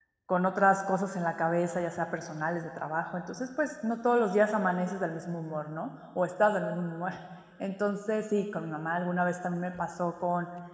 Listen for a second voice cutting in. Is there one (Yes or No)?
No